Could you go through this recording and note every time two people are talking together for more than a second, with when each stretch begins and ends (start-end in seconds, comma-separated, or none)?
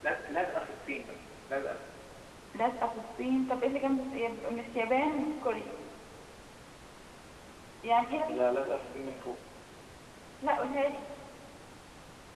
none